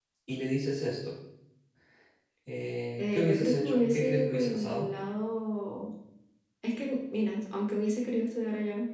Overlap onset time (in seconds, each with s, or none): 3.0 s